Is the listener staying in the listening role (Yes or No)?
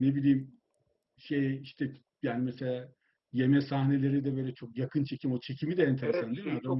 No